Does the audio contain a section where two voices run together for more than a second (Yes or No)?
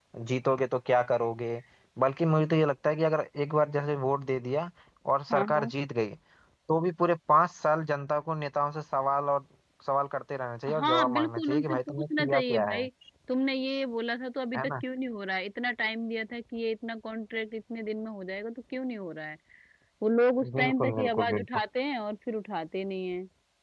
Yes